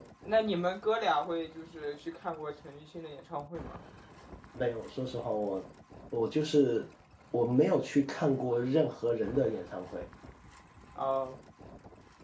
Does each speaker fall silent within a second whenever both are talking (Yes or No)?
Yes